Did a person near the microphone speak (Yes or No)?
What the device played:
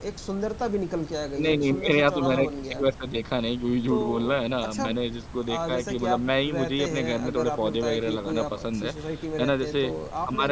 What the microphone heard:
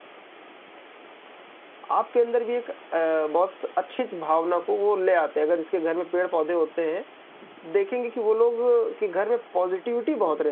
Yes